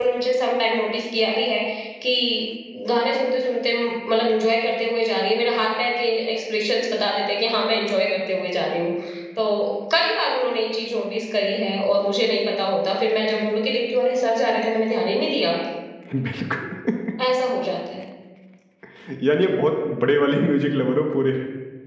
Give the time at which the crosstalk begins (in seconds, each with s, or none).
none